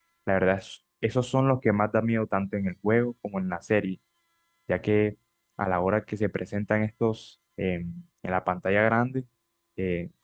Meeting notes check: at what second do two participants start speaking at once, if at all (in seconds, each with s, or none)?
none